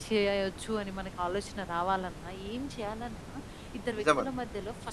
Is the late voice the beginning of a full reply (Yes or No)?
No